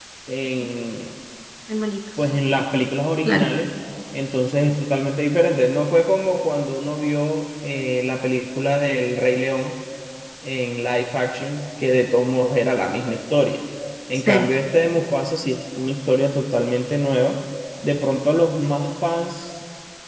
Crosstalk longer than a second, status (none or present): none